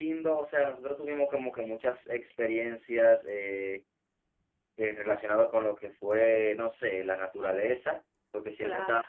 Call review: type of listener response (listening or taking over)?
listening